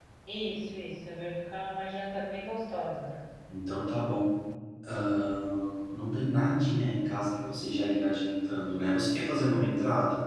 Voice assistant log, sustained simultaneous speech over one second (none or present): none